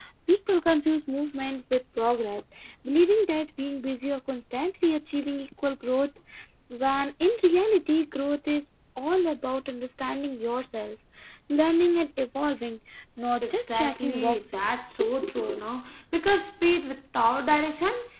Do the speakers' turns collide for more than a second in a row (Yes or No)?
Yes